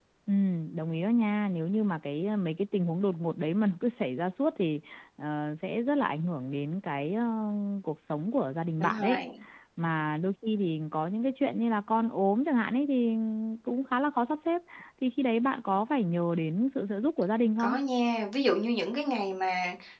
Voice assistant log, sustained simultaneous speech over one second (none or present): none